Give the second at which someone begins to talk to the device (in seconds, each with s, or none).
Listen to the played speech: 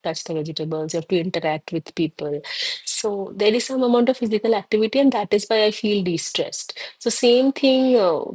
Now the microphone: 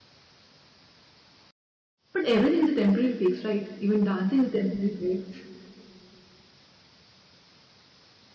2.1 s